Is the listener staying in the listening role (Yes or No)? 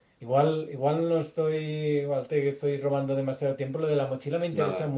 Yes